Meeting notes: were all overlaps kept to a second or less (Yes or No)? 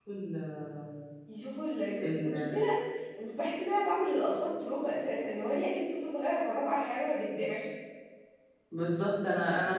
Yes